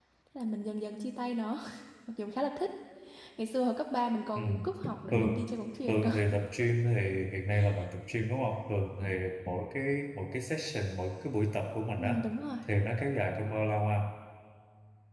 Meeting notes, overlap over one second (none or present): none